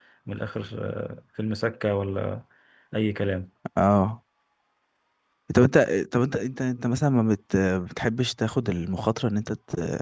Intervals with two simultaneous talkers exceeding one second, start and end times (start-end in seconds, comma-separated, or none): none